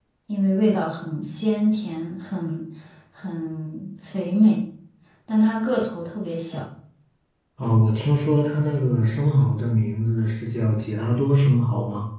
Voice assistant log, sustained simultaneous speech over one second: none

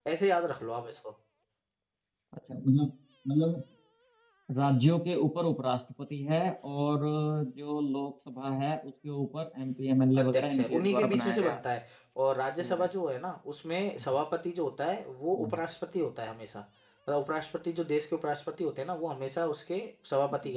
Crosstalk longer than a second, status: present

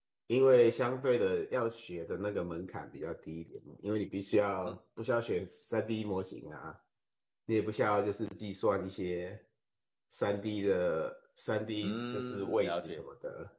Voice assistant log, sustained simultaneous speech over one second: present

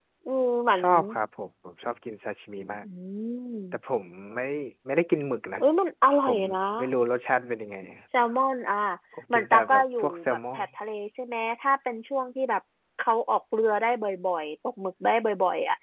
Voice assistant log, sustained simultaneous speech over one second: present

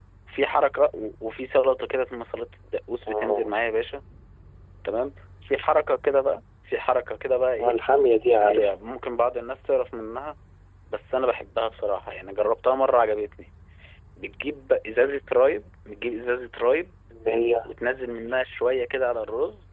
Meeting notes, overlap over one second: none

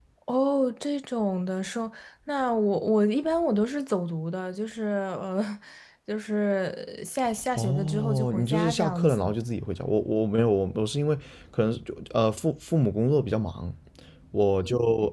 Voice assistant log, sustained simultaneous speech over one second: present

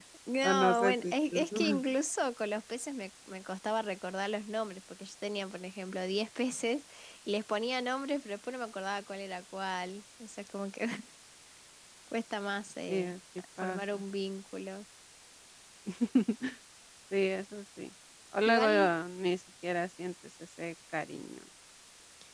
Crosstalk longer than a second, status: present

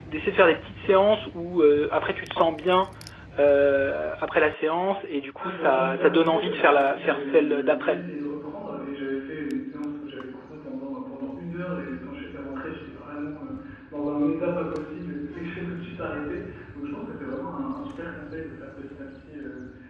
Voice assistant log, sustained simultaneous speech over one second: present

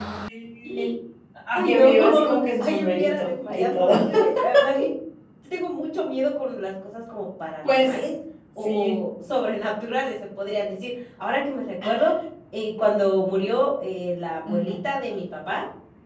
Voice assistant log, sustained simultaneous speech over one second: present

